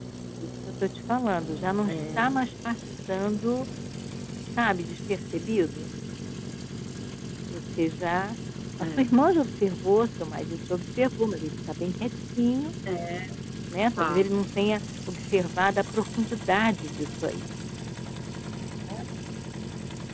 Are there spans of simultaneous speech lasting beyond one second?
No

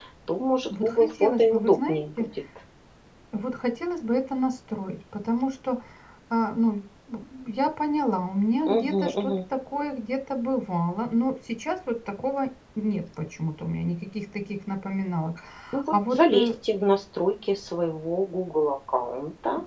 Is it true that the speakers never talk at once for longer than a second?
No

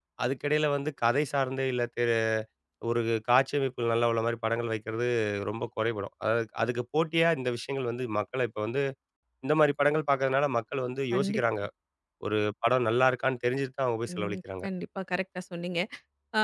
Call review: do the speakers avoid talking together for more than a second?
Yes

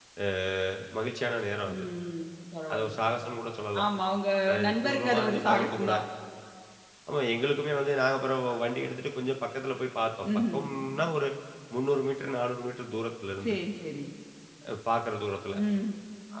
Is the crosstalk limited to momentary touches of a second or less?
No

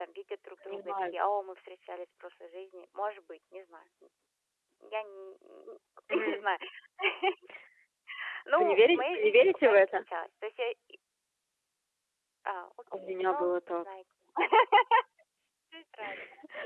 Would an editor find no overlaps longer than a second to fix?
No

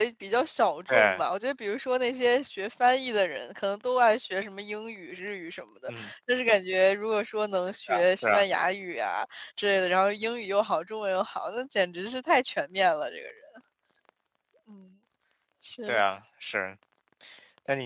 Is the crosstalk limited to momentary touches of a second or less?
Yes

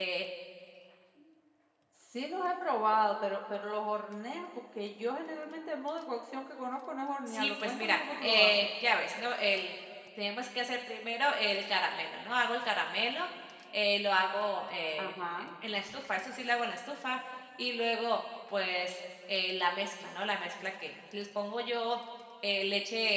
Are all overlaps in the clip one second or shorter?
No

